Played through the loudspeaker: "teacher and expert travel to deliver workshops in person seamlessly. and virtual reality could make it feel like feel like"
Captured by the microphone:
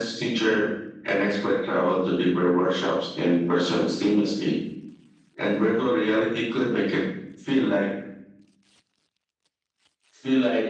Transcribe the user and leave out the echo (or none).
none